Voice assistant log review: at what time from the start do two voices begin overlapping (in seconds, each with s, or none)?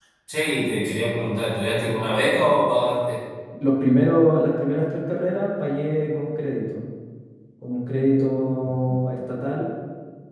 none